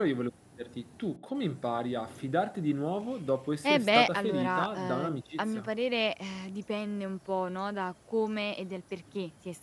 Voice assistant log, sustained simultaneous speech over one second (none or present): present